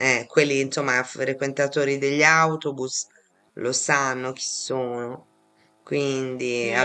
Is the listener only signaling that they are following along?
No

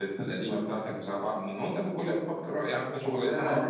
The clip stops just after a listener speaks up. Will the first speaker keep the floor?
No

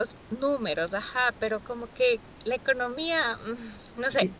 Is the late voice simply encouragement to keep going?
No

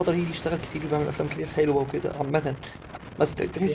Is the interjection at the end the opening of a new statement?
No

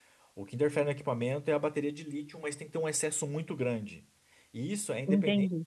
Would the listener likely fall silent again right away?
Yes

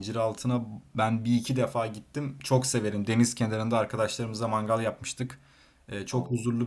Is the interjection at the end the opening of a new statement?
No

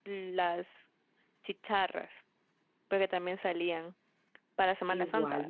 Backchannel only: No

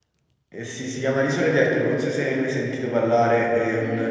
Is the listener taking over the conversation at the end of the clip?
No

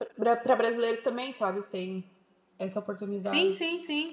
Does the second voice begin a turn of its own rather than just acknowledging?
Yes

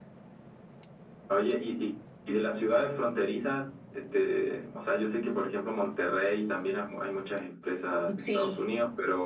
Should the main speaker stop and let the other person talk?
No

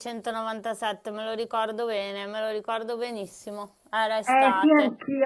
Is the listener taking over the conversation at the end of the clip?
Yes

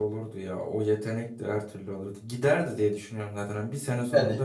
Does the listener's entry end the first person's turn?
No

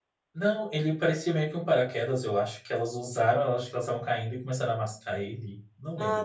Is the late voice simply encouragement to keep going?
No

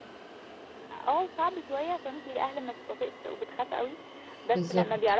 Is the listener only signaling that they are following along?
Yes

